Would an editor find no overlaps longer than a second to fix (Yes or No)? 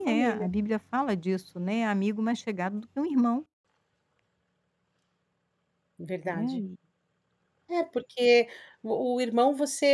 Yes